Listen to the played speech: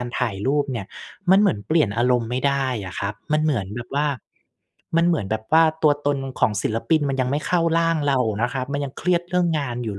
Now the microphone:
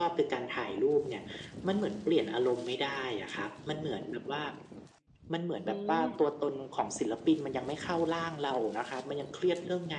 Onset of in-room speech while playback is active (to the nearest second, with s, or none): 6 s